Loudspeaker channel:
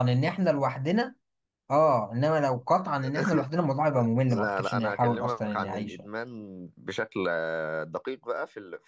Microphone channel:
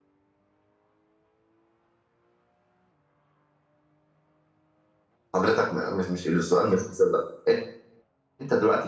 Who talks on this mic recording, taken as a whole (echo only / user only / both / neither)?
user only